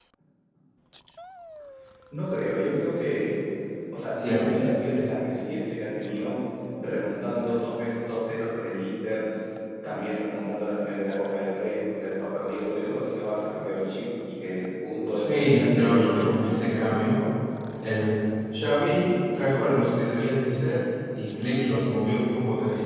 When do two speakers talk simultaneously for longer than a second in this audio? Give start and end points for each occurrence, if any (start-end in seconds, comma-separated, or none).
15.1-17.2